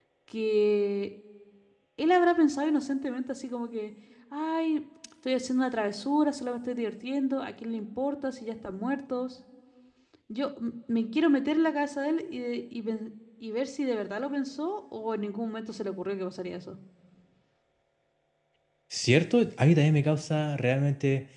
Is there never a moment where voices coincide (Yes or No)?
Yes